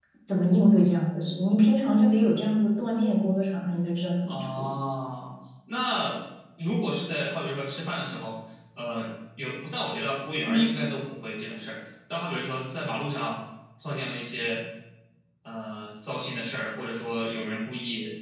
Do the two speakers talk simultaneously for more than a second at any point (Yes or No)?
No